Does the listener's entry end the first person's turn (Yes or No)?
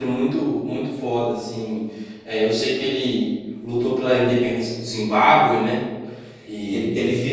Yes